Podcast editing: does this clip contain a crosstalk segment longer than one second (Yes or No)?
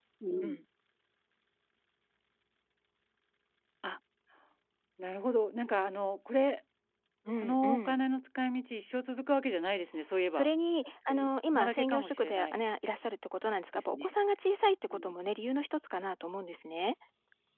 Yes